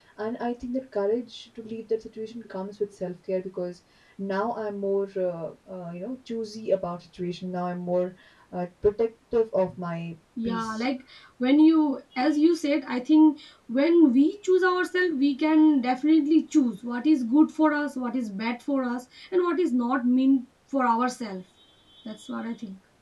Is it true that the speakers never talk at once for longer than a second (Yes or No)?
Yes